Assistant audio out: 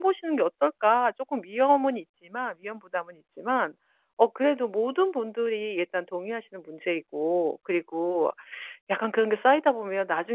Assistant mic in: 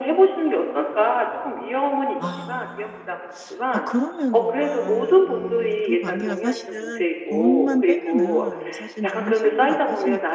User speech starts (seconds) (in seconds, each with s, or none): 2.2 s